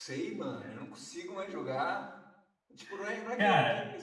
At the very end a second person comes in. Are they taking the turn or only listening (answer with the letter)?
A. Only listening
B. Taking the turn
A